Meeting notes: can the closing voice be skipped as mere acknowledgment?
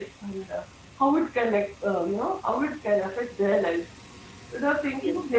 Yes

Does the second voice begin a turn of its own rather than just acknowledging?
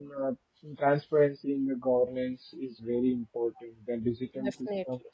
No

